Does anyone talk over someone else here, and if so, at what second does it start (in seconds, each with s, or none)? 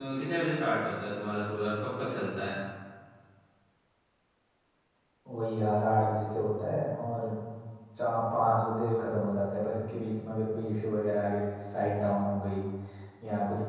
none